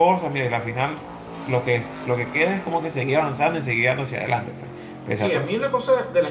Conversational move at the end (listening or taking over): taking over